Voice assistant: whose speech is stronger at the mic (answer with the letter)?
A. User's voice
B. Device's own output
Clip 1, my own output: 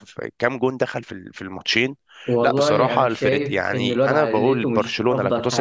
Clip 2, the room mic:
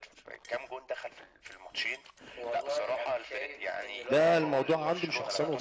A